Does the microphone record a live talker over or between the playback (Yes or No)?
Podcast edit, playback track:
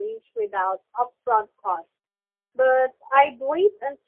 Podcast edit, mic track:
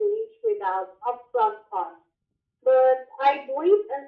No